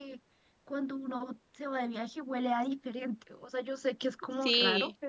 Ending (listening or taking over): listening